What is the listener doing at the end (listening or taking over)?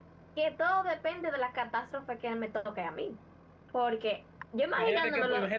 taking over